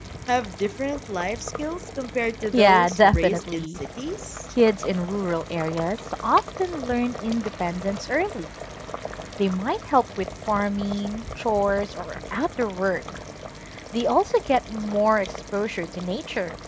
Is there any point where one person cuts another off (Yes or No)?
Yes